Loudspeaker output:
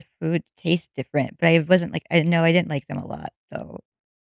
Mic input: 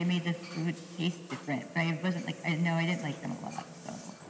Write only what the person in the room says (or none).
none